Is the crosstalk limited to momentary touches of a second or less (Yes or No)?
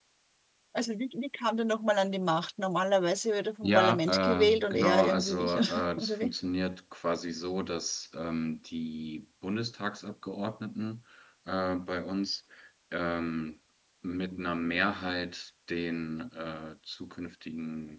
No